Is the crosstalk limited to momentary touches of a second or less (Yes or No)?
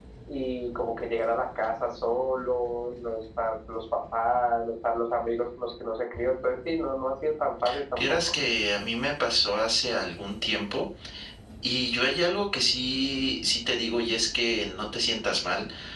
Yes